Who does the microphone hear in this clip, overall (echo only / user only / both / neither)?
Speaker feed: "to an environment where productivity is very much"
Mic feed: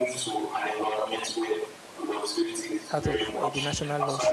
both